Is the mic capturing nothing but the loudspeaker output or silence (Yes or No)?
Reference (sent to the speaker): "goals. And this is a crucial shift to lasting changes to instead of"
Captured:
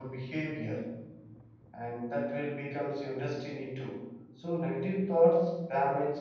No